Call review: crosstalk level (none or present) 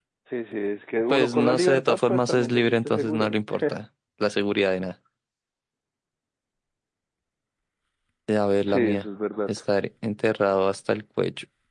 present